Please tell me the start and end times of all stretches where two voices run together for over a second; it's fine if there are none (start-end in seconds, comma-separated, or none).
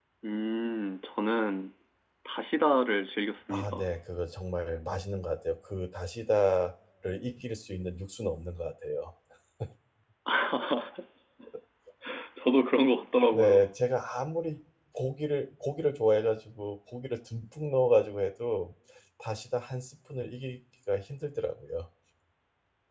none